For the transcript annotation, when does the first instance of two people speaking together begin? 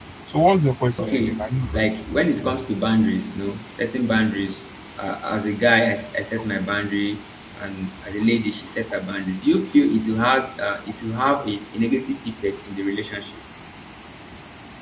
1.0 s

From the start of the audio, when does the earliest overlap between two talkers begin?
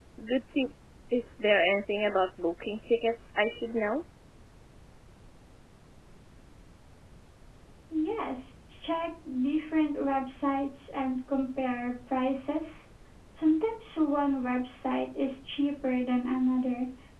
none

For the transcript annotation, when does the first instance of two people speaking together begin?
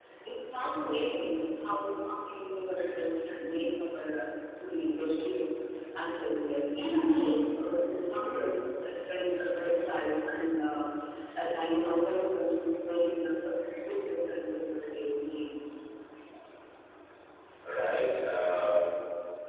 none

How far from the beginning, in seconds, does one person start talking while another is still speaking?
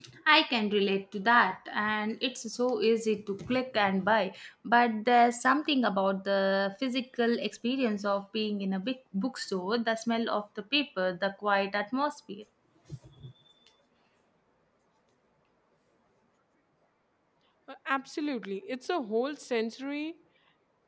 none

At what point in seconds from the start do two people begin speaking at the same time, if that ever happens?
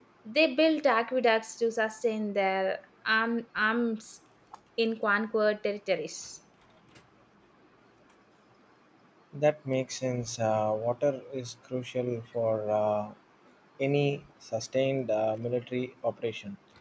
none

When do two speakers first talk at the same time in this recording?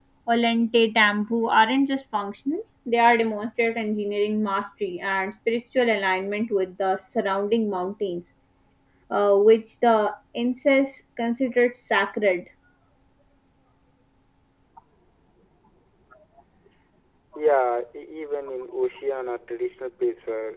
none

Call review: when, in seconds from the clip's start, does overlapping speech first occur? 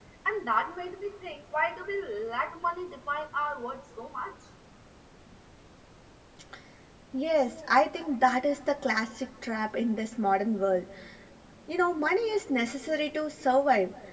none

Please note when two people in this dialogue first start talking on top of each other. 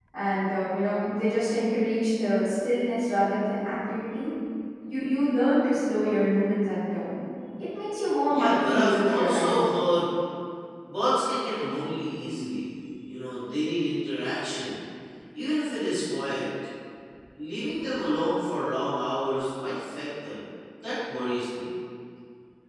8.3 s

